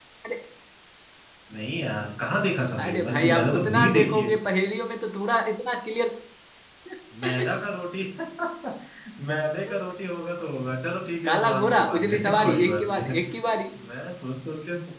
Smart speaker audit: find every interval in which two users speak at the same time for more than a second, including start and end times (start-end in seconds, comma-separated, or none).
2.8-4.3, 11.2-13.2